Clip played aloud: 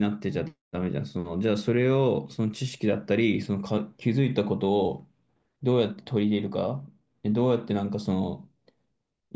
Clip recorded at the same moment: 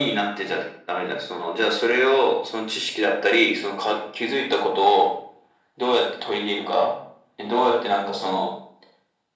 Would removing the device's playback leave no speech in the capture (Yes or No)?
Yes